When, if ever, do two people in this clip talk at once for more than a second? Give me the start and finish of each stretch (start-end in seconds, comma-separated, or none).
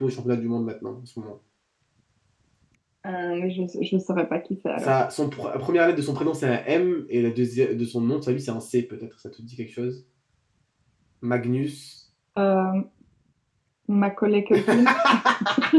none